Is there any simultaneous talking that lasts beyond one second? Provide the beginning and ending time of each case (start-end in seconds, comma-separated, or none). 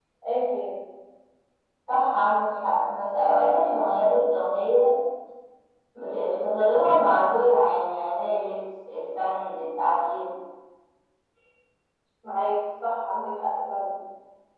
none